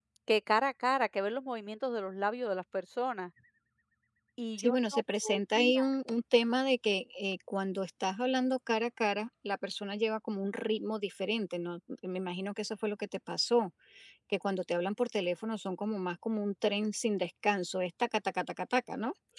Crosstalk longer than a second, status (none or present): present